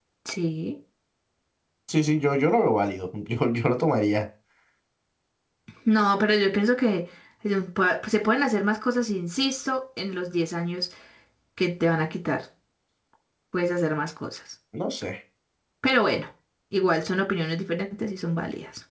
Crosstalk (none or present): none